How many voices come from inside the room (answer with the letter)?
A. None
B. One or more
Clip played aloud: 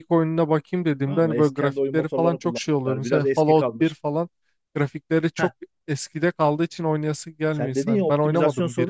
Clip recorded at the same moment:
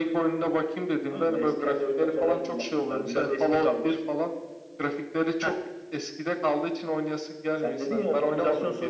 A